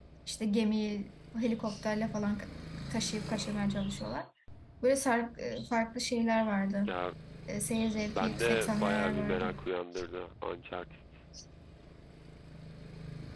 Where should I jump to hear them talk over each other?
8 s

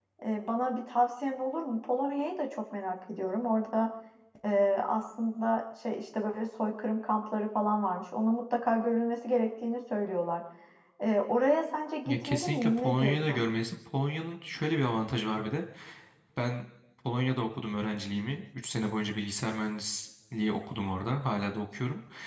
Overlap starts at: 12 s

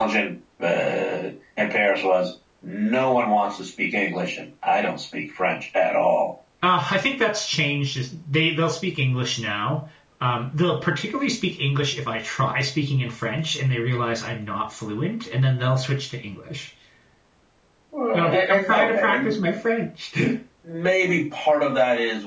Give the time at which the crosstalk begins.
18 s

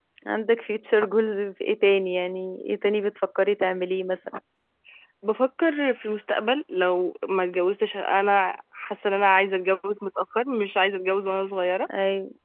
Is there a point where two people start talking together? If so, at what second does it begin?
none

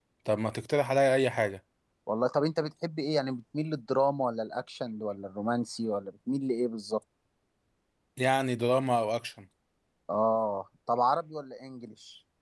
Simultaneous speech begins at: none

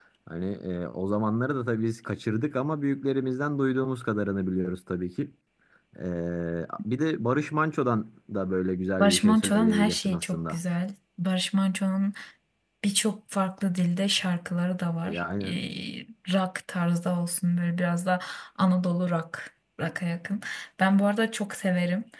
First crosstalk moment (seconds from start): 9 s

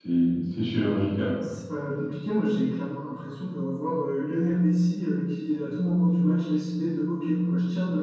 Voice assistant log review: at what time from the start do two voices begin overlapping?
none

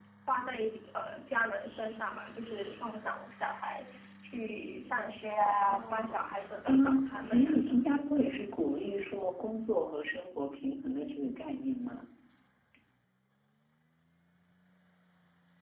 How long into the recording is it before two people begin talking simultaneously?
5 s

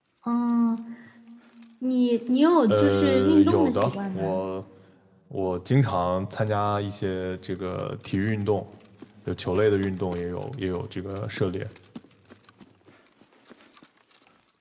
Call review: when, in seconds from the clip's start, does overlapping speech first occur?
3 s

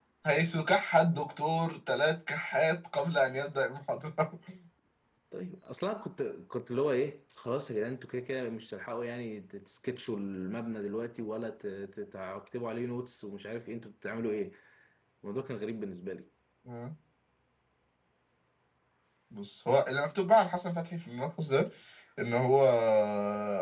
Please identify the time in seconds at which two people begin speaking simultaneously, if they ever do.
none

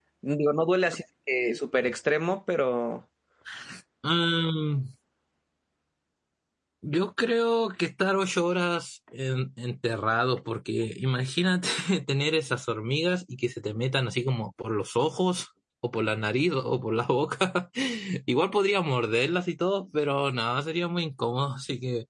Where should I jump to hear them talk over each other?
none

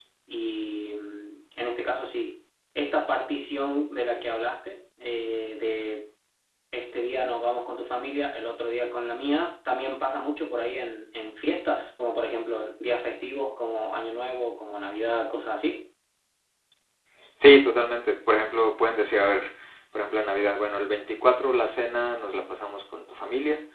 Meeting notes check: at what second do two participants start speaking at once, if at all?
none

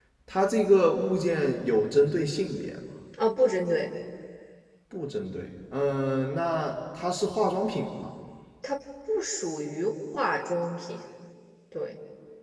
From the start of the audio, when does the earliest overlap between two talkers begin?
none

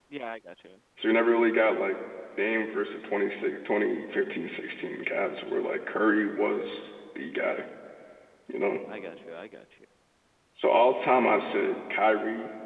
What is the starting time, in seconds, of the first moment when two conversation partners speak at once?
none

